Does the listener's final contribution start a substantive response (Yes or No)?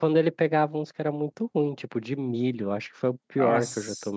No